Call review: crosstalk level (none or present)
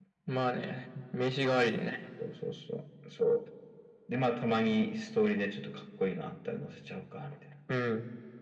none